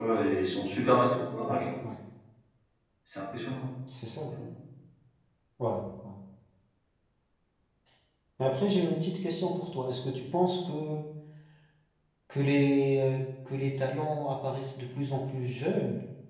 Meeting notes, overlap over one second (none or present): none